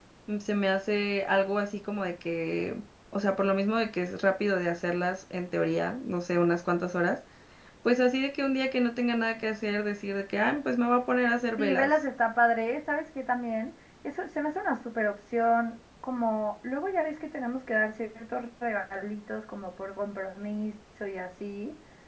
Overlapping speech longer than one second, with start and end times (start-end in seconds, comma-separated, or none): none